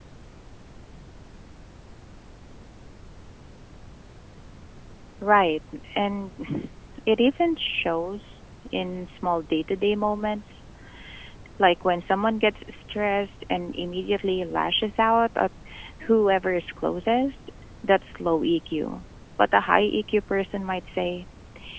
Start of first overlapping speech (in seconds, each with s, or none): none